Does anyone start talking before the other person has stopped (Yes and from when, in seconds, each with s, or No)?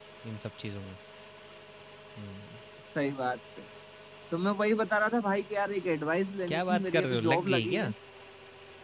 Yes, from 6.5 s